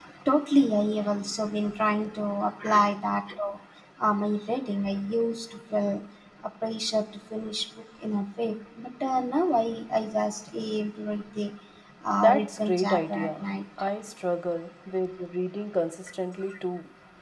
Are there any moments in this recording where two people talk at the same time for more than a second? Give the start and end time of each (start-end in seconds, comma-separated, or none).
12.2-13.4